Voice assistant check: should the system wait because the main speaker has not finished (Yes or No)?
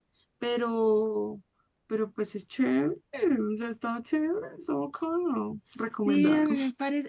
No